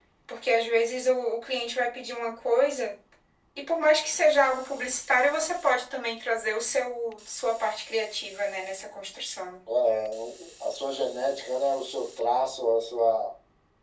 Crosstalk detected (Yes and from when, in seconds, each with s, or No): No